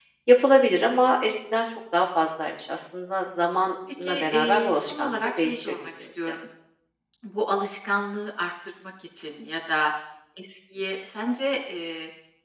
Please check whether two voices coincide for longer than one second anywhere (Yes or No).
Yes